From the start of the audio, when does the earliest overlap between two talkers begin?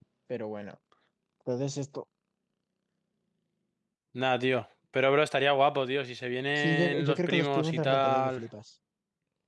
6.5 s

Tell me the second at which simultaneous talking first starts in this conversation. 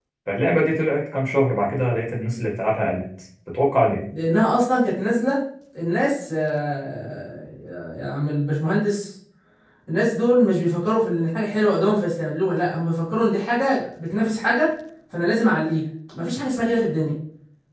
none

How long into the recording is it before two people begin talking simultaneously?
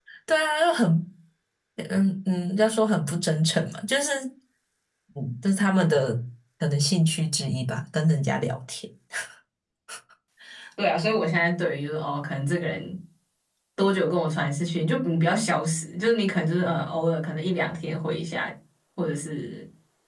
none

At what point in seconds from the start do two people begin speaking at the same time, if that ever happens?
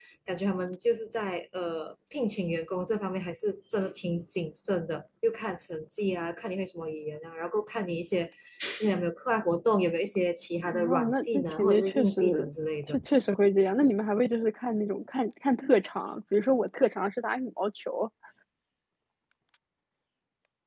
10.7 s

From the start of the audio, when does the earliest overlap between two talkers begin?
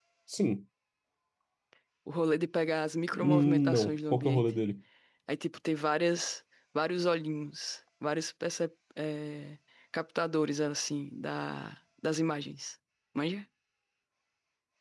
3.1 s

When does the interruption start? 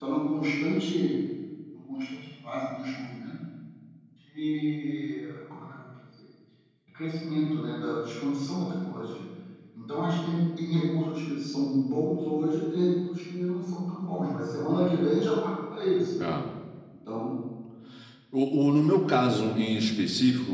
none

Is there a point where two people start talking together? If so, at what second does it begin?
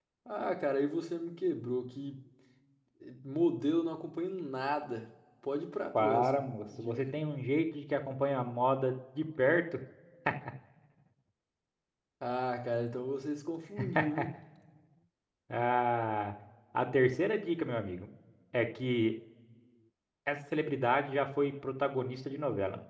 5.9 s

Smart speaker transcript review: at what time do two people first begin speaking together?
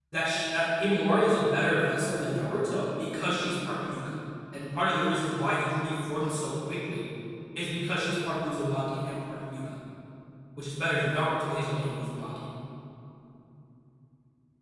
none

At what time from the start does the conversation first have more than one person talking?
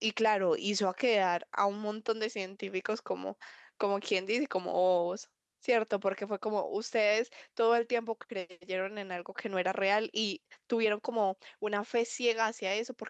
none

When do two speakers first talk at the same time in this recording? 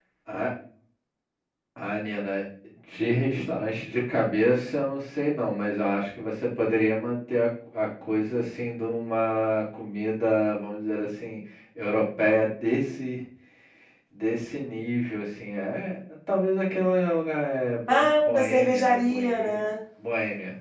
17.9 s

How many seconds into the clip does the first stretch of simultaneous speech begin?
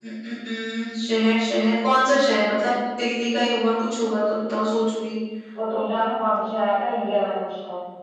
none

